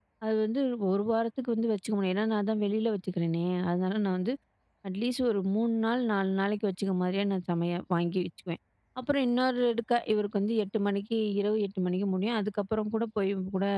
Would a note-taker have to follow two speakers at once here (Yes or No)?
No